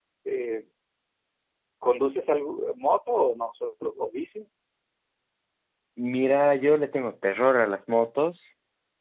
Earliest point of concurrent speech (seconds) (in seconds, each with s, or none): none